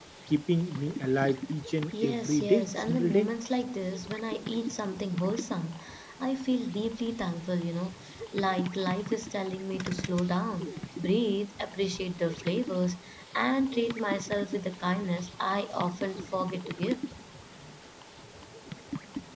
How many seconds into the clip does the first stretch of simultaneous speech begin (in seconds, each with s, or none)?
1.9 s